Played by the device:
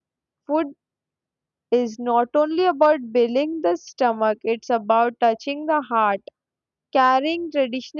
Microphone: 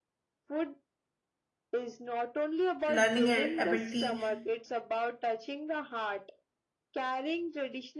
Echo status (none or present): present